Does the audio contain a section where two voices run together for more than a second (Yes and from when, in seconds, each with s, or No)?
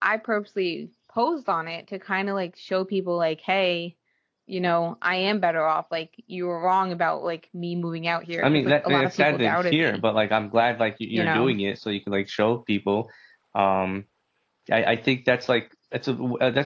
Yes, from 8.4 s